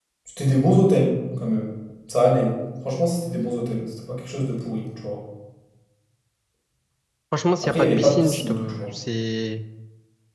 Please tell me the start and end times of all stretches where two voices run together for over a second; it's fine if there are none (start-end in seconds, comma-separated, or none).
7.6-8.9